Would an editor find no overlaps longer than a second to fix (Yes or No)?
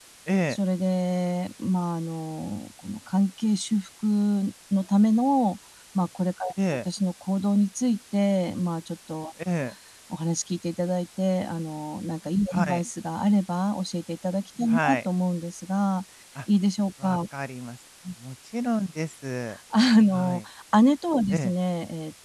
Yes